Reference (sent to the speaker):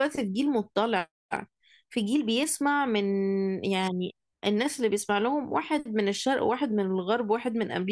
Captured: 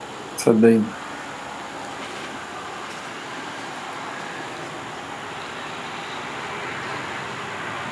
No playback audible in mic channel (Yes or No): Yes